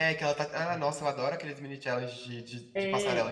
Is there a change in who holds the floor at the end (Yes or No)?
Yes